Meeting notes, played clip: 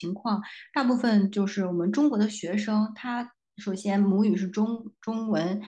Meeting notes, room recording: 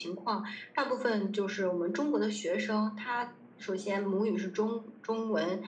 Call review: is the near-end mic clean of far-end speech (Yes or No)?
No